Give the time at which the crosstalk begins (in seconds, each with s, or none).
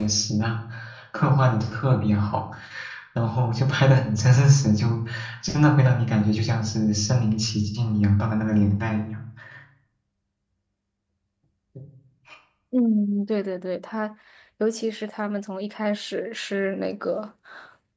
none